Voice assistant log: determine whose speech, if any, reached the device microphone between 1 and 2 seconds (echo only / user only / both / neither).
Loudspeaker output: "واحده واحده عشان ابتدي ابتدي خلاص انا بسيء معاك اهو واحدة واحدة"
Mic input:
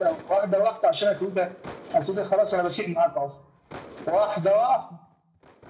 echo only